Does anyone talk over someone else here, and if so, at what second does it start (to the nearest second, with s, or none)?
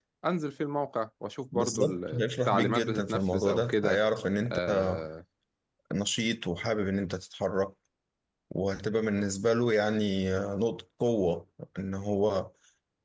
2 s